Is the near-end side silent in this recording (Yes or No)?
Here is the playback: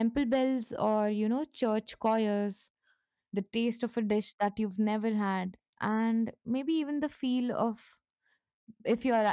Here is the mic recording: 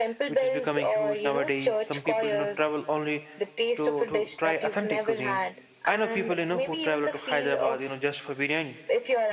No